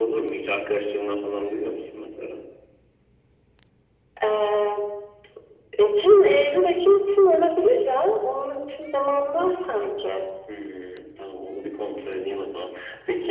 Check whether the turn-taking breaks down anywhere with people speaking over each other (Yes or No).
No